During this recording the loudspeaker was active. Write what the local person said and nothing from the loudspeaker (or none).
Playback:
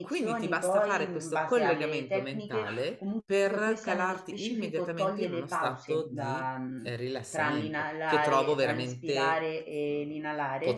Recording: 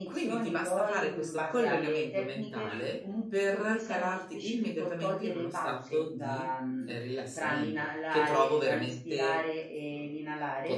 none